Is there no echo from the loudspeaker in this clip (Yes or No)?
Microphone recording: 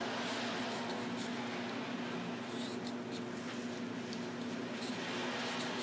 Yes